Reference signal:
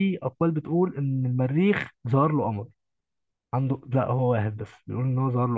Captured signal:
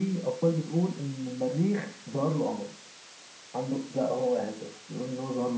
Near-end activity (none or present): none